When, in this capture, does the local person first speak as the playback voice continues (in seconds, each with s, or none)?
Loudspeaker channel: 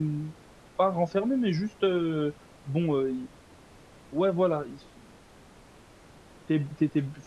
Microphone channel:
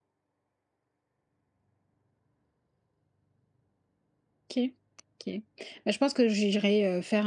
4.5 s